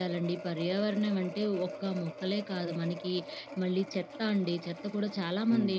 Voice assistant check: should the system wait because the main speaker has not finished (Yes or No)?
Yes